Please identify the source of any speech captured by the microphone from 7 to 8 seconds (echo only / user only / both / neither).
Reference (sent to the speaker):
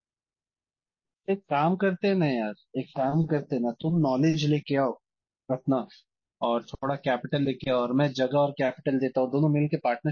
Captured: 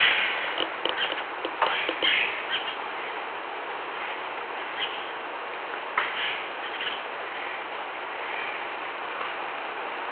neither